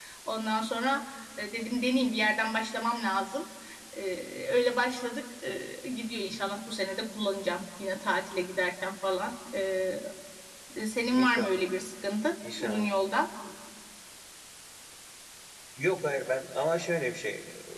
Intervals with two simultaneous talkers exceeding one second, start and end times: none

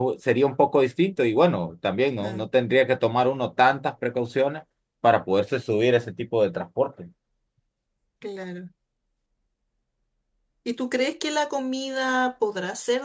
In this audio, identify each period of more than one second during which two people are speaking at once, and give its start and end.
none

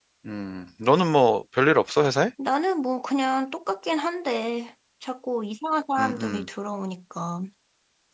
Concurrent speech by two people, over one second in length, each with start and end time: none

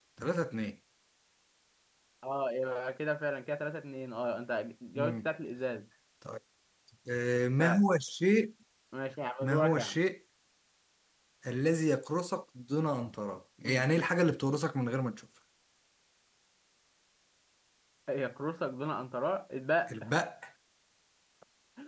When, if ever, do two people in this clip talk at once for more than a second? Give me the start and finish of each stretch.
none

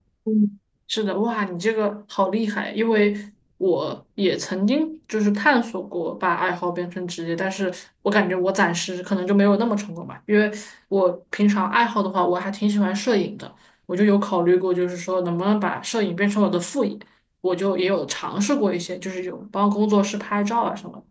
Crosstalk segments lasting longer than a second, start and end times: none

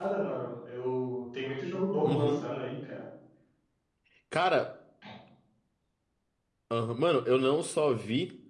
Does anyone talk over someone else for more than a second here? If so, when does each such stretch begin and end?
none

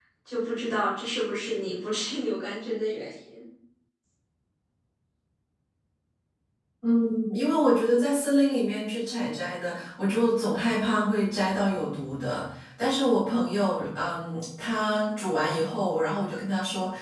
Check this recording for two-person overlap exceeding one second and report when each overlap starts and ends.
none

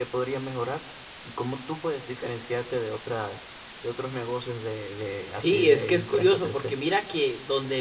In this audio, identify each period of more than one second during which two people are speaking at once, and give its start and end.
5.3-6.7

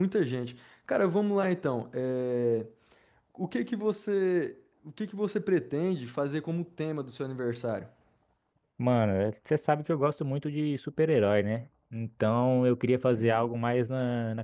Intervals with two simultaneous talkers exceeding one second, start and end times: none

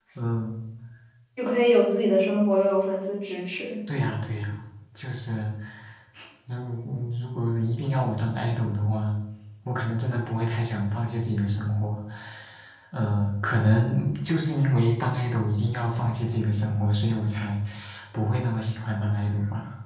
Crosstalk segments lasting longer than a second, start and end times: none

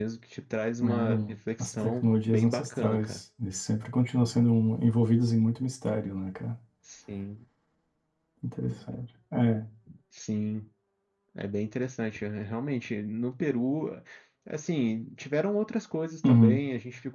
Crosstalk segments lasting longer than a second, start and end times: 0.9-3.2

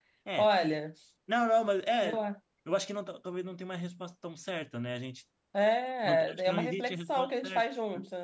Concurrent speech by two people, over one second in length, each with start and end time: 6.0-7.6

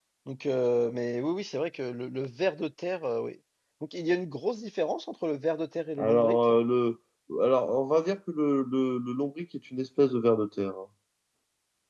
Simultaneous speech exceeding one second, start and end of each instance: none

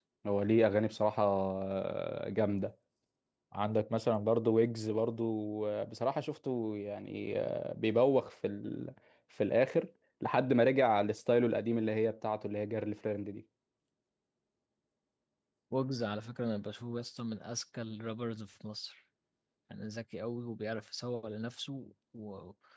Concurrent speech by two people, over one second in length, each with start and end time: none

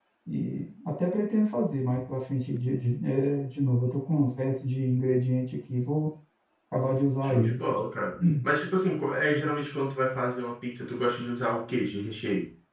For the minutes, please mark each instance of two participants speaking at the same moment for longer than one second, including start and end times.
none

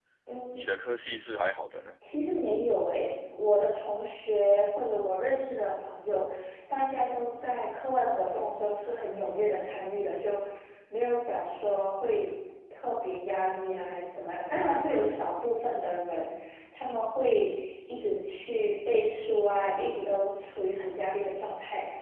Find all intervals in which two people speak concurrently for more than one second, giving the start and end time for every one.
none

